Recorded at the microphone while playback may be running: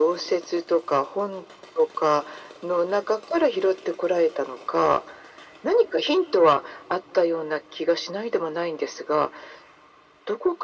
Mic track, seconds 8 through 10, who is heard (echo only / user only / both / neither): echo only